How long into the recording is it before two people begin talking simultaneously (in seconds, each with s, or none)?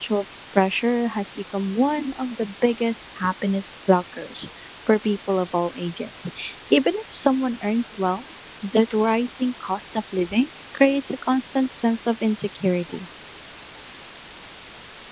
none